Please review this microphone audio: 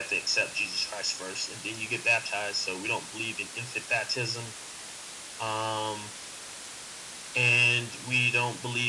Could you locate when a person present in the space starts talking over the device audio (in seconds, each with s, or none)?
none